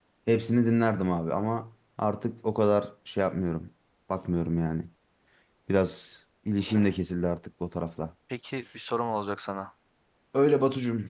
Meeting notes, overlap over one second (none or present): none